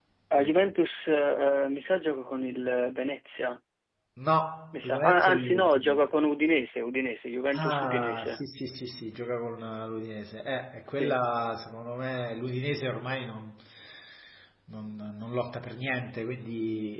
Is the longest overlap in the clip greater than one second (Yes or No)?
Yes